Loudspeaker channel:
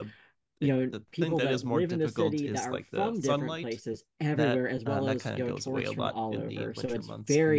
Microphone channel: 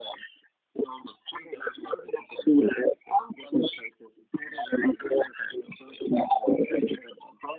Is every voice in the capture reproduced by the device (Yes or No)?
Yes